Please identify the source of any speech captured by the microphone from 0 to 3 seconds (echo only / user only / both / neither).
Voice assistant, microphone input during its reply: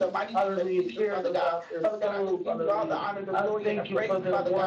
echo only